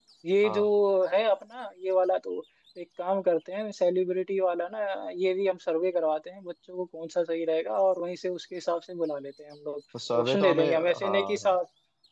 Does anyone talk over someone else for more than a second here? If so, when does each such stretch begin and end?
10.1-11.5

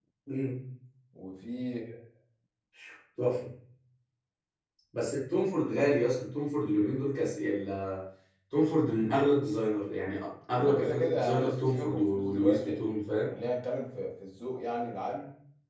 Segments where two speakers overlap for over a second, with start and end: 10.6-12.8

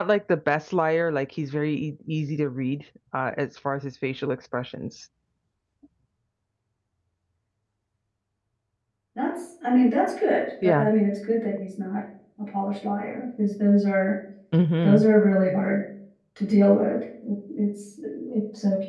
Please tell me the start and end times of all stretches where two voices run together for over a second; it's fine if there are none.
none

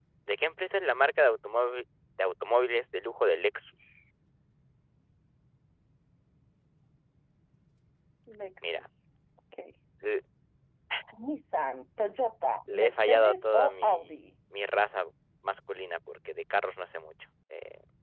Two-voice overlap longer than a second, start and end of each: 12.7-14.2

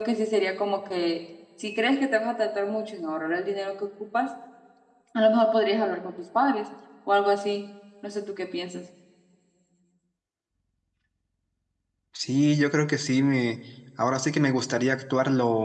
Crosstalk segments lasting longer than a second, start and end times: none

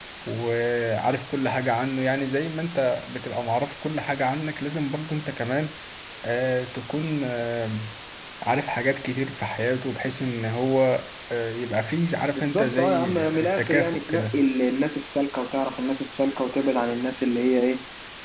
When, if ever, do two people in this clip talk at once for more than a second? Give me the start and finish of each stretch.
12.3-14.4

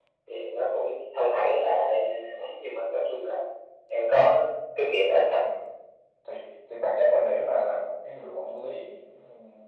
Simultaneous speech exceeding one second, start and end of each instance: none

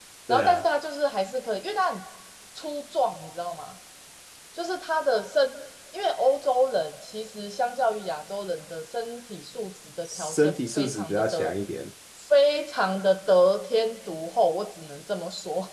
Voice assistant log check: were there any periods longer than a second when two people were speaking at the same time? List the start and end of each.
10.0-11.5

